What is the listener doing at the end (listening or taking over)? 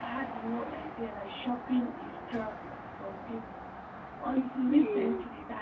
listening